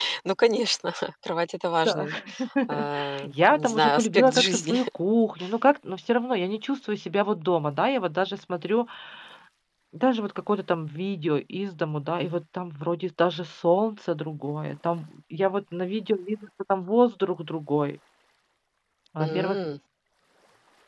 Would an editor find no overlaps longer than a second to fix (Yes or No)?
No